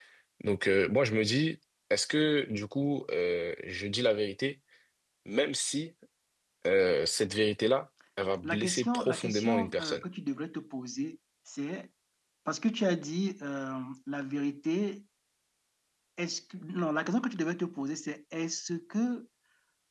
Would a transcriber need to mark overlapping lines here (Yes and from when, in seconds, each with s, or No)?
Yes, from 8.4 s